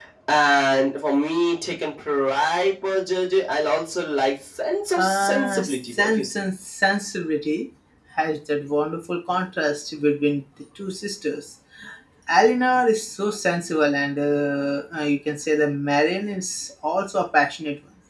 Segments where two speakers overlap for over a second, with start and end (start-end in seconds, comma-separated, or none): 5.0-6.4